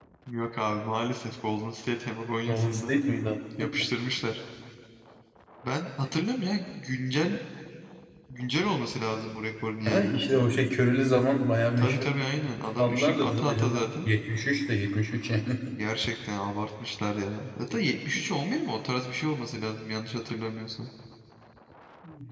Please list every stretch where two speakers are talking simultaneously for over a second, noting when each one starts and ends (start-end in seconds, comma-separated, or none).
12.8-14.1